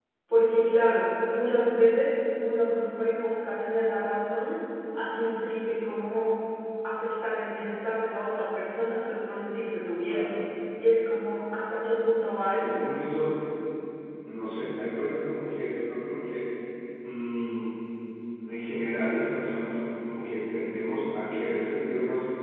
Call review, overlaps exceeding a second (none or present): none